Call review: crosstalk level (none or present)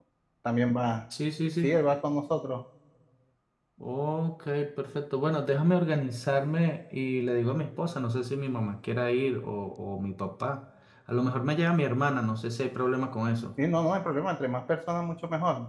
none